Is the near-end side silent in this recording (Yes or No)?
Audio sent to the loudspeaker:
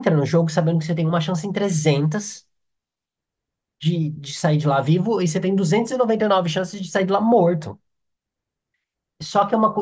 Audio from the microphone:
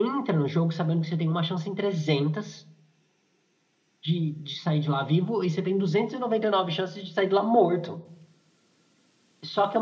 Yes